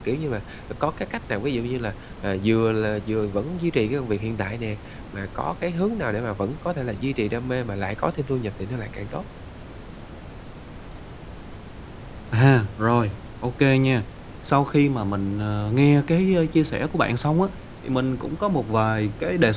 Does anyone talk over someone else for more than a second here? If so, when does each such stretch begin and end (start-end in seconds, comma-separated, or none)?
none